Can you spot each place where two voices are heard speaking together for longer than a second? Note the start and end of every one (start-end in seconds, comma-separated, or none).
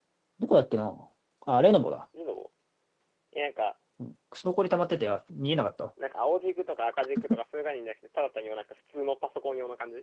none